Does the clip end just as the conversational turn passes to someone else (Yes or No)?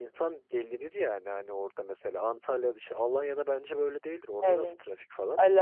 Yes